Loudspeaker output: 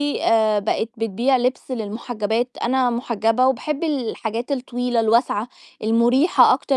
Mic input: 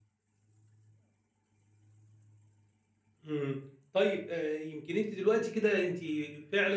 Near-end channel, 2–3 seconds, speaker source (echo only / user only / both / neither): neither